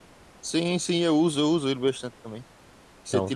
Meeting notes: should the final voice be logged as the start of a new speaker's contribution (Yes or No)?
No